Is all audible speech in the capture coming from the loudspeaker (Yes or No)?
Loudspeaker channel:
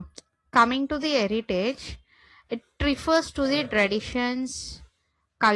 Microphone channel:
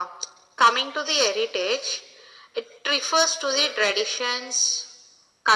Yes